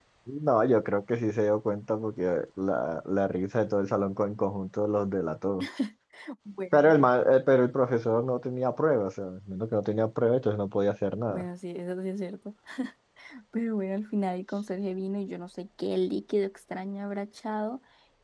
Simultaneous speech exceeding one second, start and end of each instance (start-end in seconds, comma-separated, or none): none